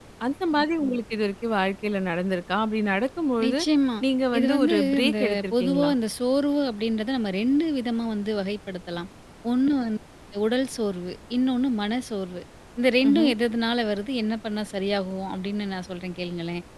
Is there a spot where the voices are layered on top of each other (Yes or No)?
Yes